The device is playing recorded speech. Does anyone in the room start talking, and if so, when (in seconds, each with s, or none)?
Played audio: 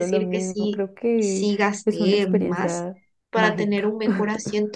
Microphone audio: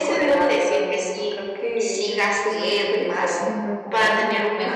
3.3 s